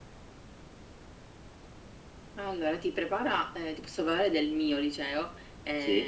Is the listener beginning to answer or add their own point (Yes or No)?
No